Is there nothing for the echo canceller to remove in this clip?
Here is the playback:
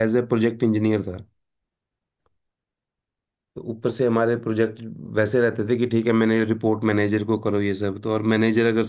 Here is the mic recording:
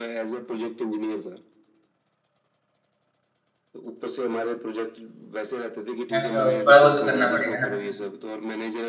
No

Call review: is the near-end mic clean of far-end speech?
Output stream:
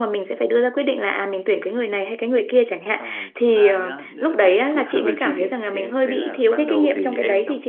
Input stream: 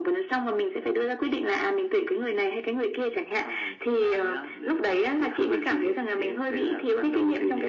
No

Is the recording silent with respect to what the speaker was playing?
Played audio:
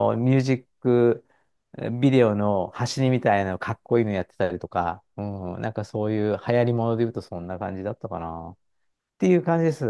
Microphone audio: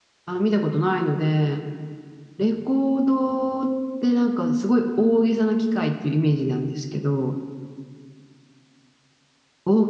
Yes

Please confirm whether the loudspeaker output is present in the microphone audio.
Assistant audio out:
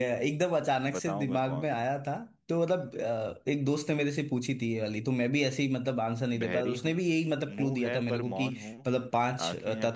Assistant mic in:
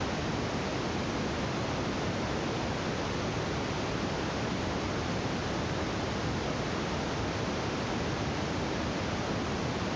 No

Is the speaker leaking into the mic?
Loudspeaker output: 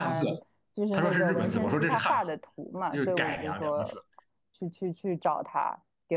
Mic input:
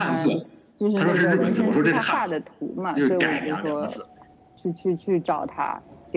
Yes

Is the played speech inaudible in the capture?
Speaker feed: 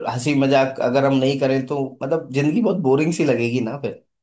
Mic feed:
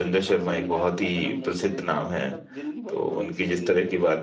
No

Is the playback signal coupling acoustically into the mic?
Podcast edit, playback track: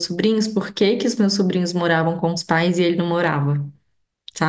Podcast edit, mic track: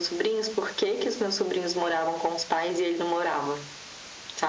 Yes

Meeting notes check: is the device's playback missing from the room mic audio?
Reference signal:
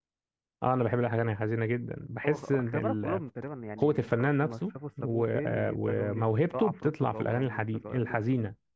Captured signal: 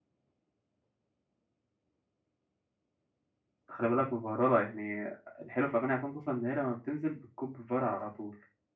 Yes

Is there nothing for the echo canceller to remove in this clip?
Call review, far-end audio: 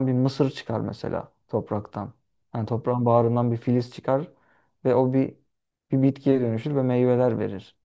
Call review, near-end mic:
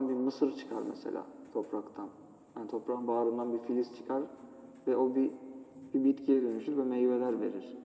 No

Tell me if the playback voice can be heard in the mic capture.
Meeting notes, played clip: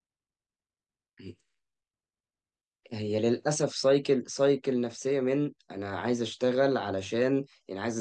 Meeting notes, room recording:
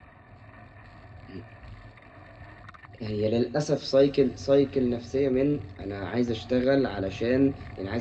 Yes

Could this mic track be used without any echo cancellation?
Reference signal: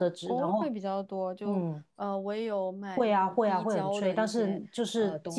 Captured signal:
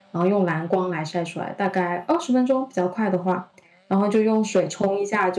Yes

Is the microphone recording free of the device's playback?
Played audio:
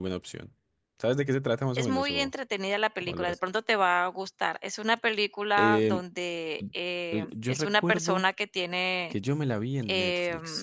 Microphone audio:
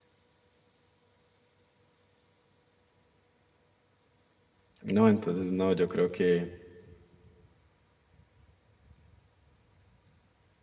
Yes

